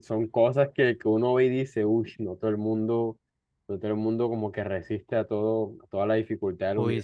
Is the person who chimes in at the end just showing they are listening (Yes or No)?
No